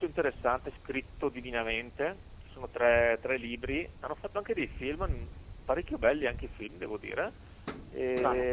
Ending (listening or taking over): listening